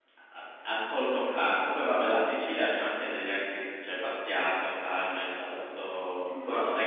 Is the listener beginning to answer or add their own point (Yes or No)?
Yes